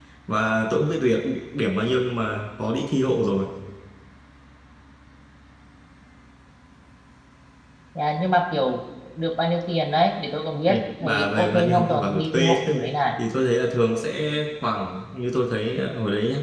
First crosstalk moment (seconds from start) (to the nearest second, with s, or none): 11 s